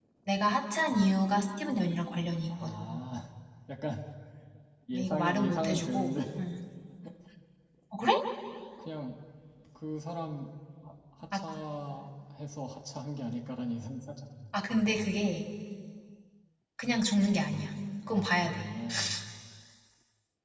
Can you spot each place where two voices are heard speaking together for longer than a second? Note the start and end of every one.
4.9-6.2

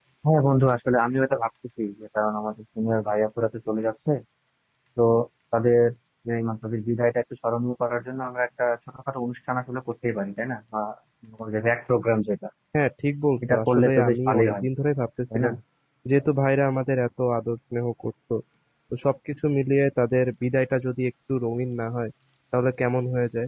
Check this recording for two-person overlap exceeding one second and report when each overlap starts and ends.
13.4-14.6

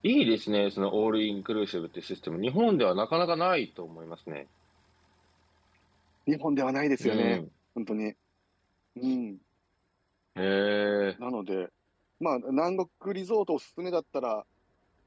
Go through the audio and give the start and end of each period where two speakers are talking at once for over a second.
none

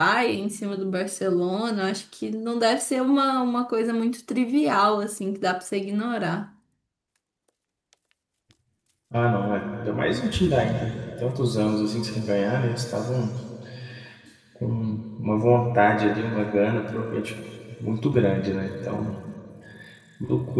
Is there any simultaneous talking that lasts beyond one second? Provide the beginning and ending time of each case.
none

